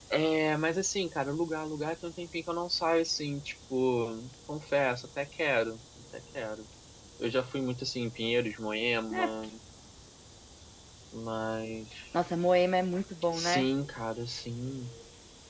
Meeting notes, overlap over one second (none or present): none